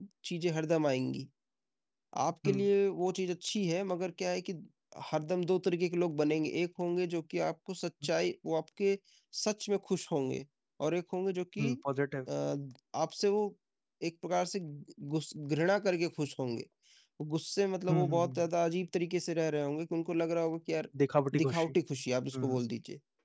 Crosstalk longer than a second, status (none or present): none